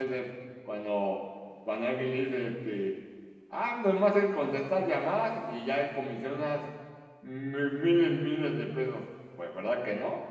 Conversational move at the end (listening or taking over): taking over